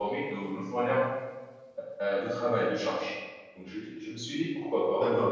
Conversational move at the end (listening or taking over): taking over